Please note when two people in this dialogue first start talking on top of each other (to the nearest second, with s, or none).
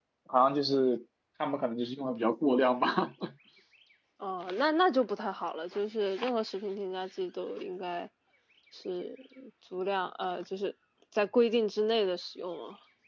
none